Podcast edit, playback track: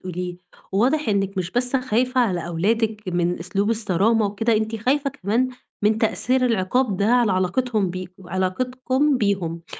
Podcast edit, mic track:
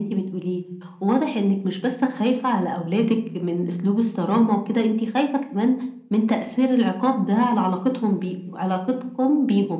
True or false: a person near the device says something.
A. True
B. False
B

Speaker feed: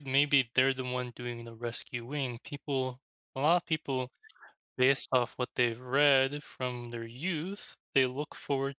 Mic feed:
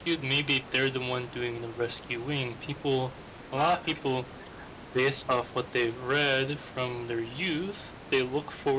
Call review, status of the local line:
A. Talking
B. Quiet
A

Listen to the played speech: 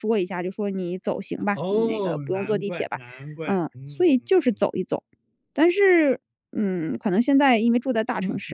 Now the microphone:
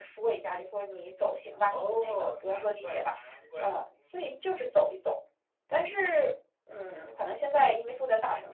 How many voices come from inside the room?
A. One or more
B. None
B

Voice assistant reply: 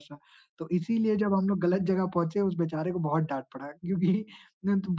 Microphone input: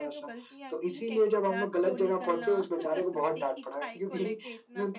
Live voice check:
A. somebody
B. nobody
A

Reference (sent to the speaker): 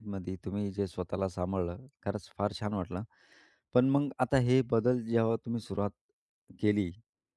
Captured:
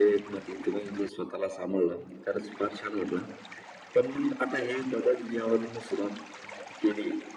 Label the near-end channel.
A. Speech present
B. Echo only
B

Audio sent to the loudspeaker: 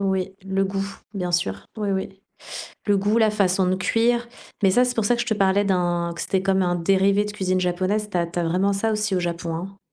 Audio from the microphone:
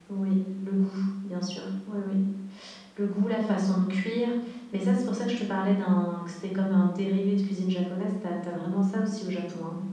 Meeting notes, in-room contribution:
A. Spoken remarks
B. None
B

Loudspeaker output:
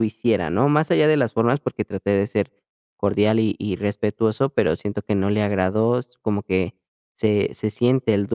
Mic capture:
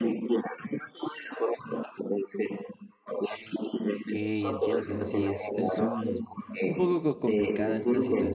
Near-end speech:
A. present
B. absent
A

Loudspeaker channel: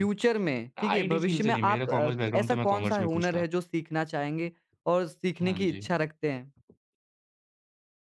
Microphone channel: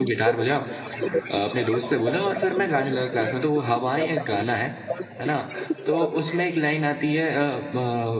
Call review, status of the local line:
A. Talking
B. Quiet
A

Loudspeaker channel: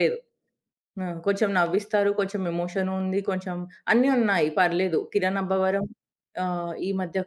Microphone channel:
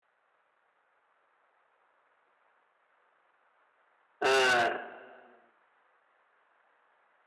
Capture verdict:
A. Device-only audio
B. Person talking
B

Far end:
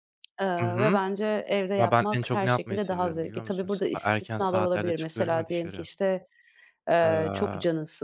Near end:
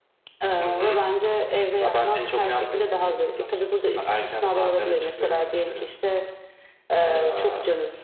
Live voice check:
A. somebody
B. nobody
B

